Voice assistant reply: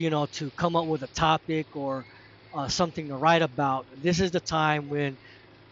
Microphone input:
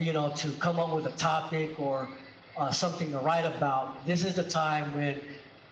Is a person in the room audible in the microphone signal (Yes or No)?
No